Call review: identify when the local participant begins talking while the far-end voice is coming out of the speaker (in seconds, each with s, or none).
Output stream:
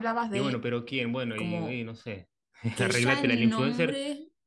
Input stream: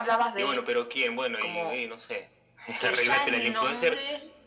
none